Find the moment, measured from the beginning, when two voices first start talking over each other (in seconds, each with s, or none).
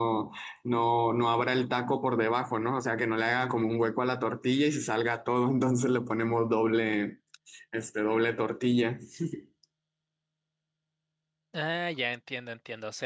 none